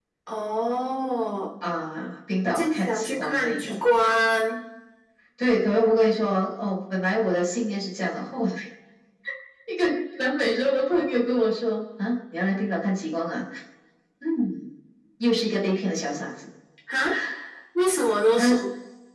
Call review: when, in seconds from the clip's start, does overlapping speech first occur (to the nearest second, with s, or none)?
3 s